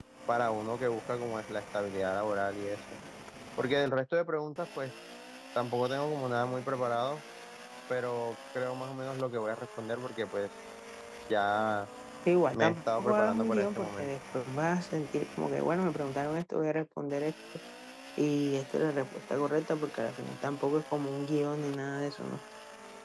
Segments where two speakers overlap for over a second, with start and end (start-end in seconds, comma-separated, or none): 12.5-14.1